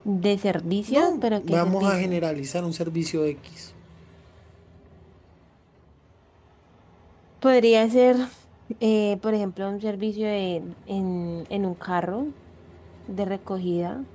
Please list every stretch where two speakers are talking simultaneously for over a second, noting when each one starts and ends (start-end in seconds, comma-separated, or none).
0.9-2.2